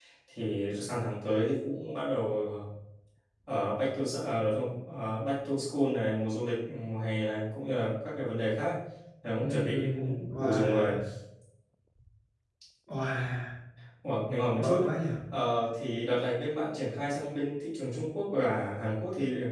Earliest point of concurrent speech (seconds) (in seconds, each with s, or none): 9.4 s